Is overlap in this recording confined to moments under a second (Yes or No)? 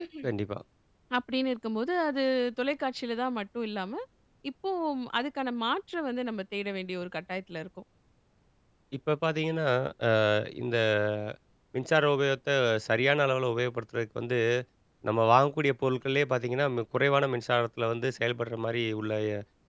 Yes